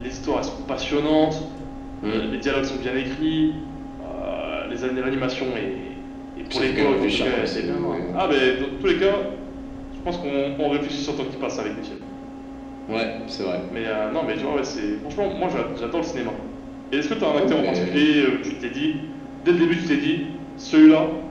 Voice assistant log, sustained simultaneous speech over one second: present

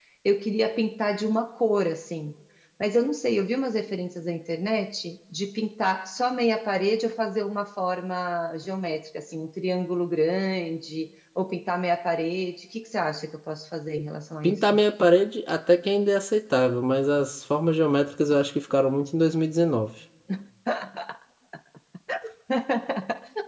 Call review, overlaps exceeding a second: none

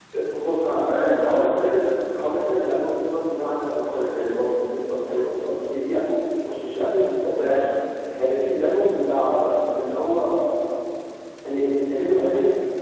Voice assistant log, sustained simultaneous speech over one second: present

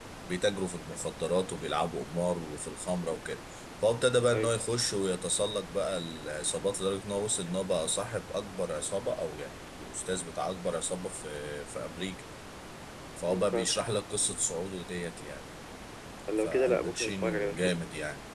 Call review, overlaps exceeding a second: present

